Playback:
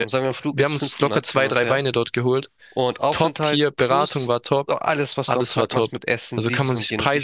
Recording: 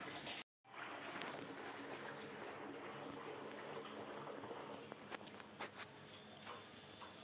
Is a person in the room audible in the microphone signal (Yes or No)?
No